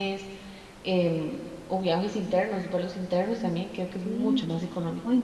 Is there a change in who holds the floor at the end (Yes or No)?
Yes